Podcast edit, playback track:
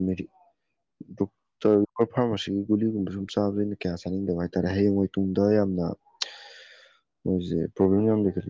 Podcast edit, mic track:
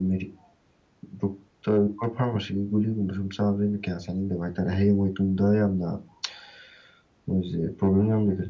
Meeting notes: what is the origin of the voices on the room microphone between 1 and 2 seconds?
echo only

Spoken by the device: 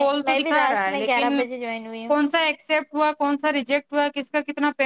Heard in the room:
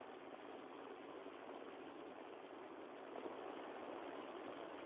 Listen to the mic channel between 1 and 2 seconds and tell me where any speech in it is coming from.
neither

